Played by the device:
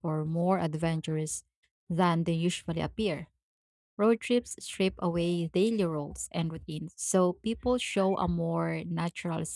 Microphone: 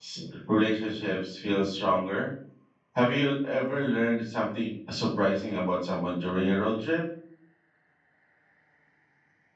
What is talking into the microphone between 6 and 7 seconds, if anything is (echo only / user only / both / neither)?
user only